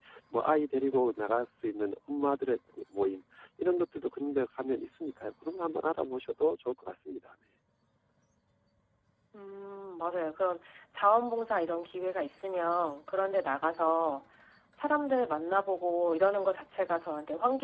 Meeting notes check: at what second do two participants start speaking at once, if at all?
none

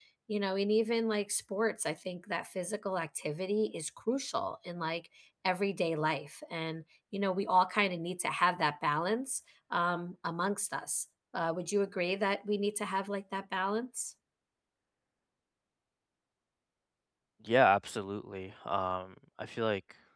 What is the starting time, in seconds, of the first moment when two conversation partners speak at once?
none

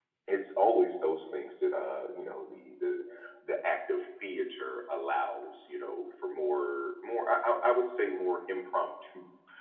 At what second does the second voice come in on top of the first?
none

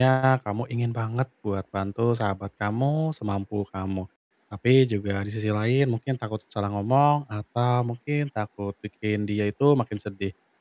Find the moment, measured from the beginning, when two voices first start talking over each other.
none

